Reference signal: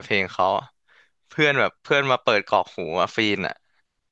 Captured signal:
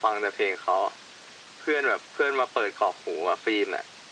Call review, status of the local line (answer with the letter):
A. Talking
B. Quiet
B